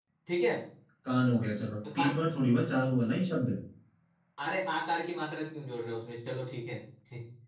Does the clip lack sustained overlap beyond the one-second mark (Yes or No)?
Yes